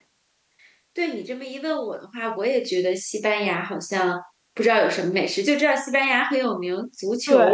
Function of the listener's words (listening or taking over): taking over